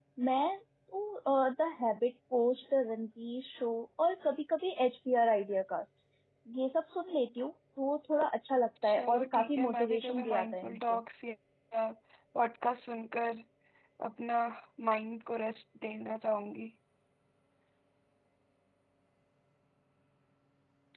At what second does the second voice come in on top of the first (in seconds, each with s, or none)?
8.8 s